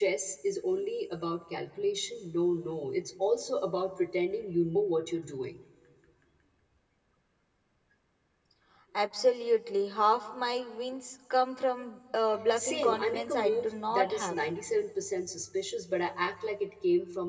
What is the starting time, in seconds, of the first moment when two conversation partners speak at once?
12.6 s

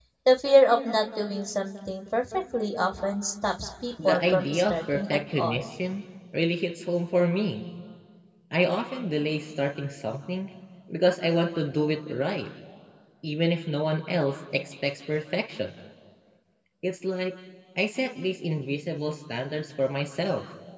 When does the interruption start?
4.0 s

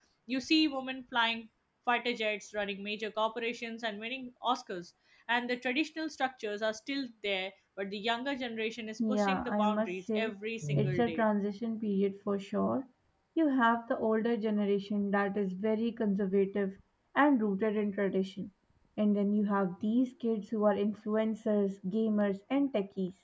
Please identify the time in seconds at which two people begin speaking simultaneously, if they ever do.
9.0 s

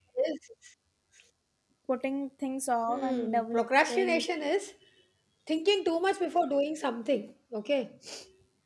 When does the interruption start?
2.9 s

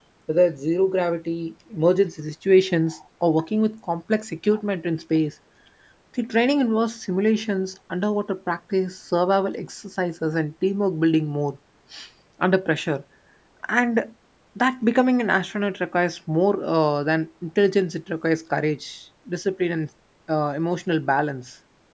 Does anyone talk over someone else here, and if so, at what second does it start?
none

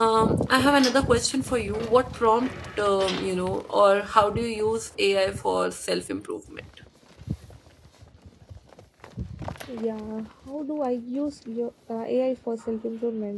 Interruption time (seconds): none

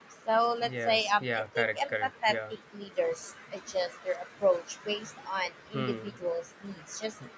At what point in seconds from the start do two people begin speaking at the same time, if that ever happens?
0.6 s

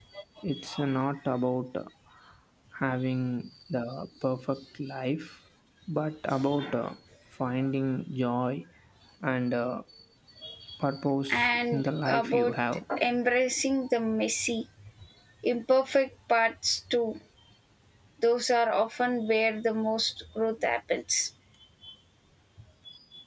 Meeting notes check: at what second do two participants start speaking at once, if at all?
11.3 s

